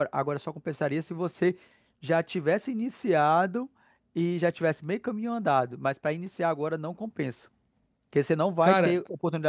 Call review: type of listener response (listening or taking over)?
listening